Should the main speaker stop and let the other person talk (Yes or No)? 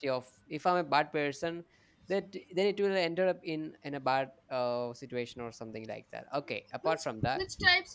Yes